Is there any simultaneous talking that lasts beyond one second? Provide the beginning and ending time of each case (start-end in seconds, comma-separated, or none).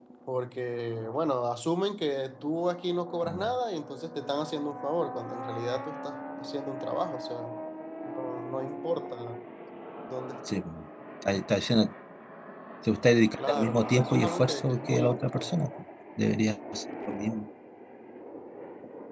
13.4-15.6